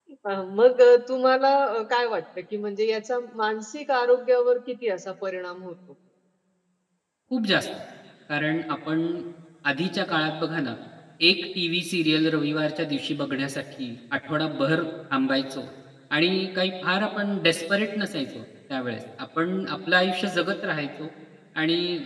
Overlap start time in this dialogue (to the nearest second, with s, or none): none